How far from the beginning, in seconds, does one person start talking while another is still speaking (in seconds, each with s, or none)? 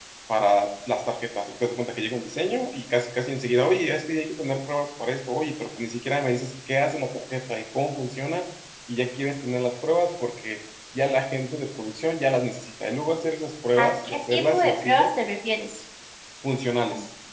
13.8 s